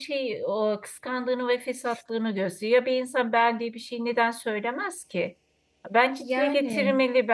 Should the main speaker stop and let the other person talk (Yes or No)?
No